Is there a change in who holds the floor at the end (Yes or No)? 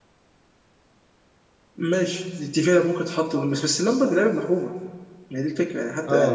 Yes